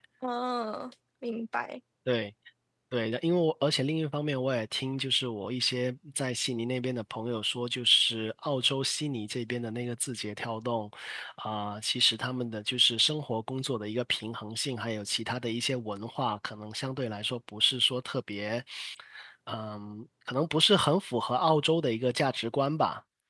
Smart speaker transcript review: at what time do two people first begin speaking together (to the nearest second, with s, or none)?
none